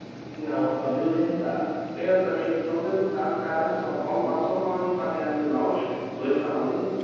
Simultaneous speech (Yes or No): No